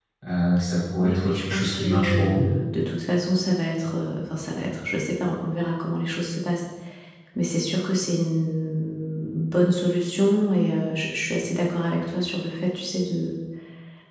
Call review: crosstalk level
present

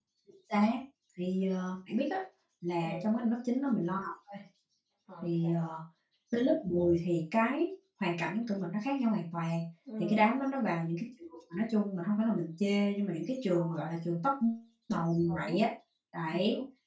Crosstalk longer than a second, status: none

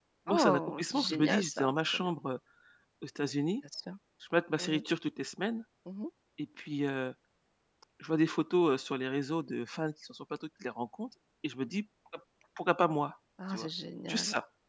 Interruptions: present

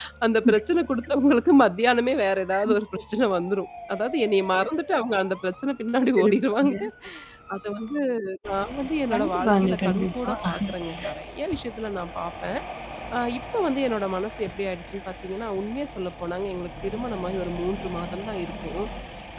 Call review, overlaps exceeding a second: present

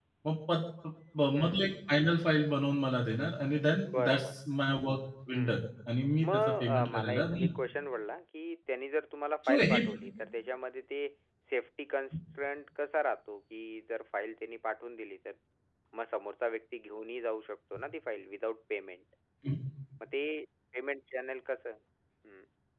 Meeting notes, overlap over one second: present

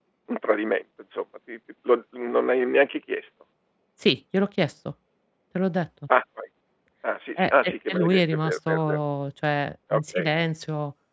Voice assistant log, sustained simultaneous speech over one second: present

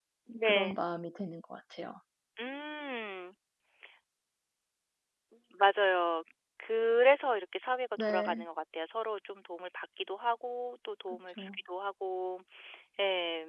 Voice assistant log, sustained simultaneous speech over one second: none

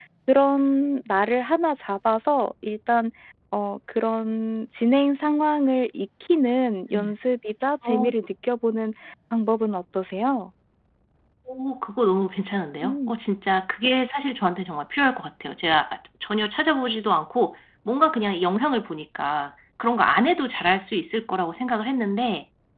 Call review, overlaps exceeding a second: none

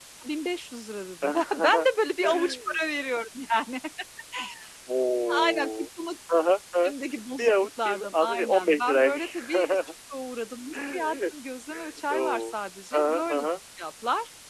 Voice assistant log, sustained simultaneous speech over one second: present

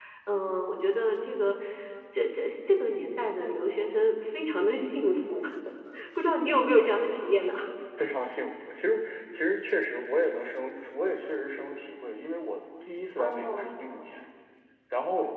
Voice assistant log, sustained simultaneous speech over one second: none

